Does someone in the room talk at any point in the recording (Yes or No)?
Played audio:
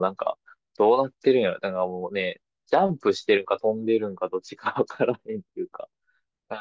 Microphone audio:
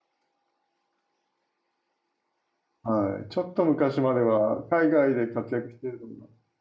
Yes